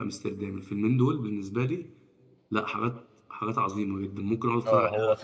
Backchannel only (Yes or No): No